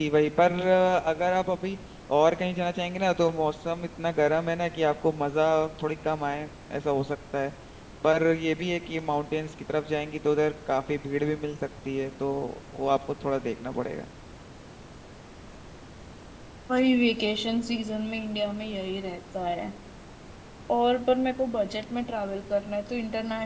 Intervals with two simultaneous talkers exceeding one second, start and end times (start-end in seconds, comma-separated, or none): none